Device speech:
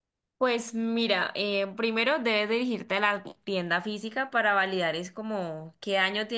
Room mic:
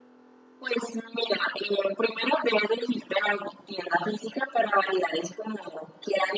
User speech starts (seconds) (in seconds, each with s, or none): none